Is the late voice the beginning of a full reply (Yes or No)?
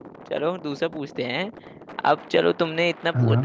No